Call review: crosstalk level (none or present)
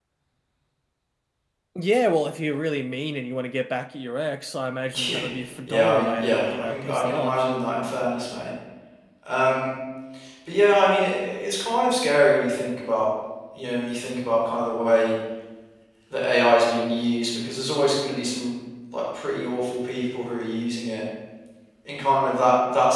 present